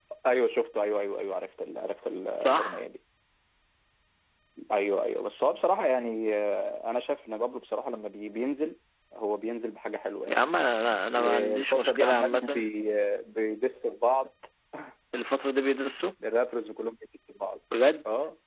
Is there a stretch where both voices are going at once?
Yes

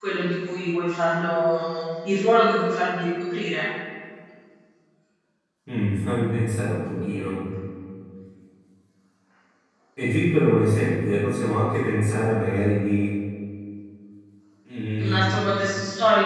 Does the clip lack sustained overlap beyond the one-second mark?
Yes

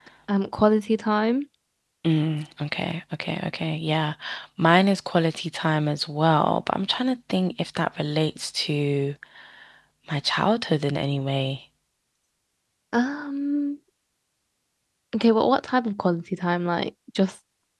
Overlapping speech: No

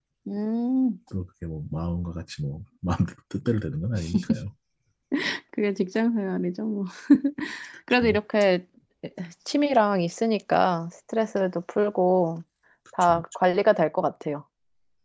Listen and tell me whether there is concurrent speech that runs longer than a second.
No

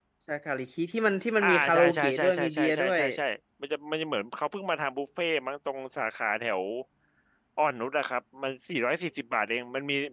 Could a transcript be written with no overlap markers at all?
No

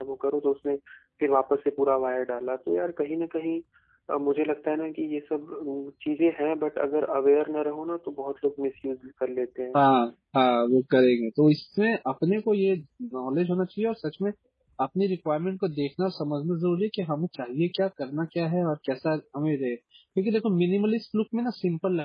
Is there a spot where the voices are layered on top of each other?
No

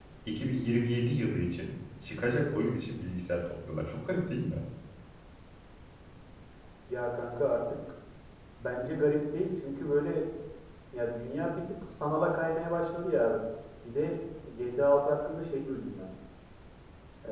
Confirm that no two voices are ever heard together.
Yes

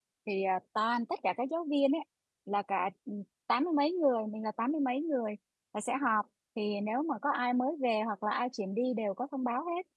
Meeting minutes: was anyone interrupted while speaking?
No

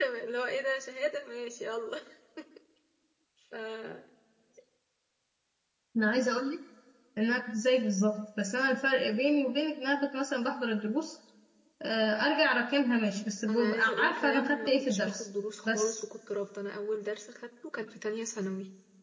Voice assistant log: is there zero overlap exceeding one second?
No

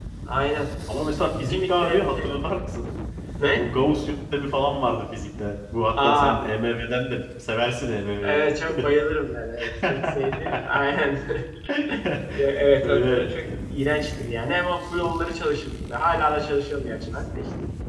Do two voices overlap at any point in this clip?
Yes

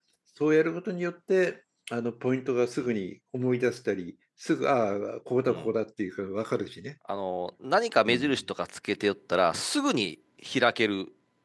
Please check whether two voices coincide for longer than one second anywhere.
No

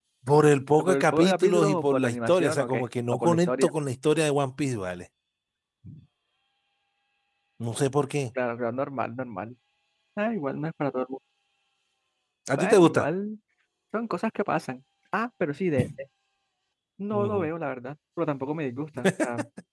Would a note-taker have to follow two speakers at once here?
Yes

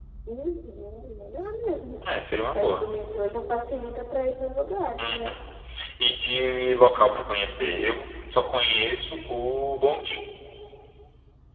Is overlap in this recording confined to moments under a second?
Yes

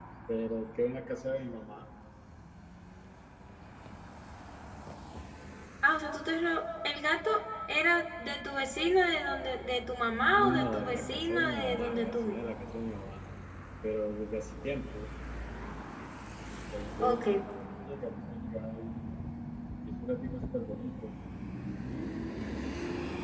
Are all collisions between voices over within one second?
No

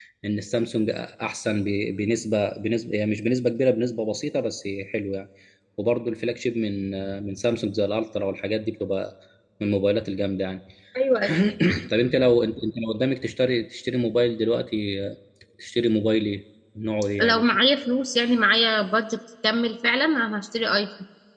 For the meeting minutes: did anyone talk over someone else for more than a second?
No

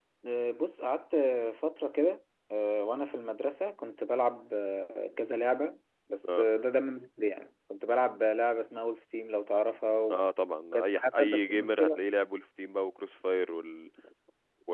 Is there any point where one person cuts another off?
Yes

